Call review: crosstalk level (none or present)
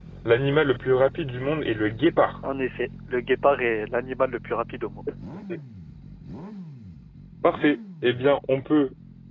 none